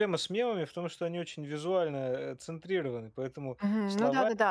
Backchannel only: No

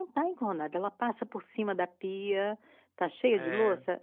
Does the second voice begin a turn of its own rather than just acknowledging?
No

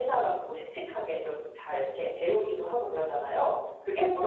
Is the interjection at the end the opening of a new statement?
Yes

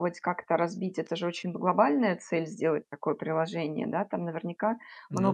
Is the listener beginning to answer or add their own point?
No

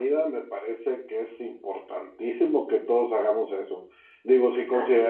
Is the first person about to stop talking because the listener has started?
No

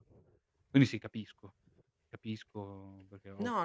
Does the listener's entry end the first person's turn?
Yes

